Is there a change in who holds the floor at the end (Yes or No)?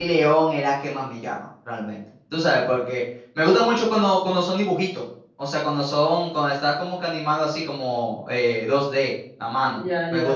Yes